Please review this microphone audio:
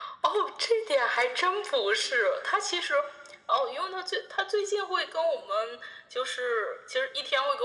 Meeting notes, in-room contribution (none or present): none